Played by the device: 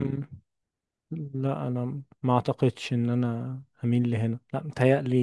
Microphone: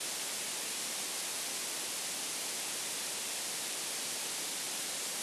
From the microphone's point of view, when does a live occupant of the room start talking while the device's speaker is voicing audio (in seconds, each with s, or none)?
none